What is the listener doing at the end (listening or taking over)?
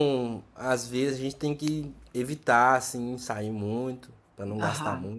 taking over